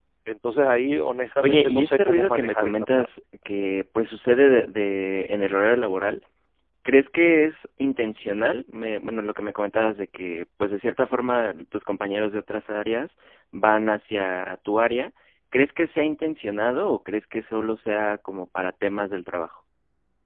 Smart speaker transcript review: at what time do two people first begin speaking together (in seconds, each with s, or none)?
1.4 s